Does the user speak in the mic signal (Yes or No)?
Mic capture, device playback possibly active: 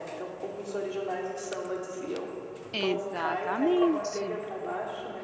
Yes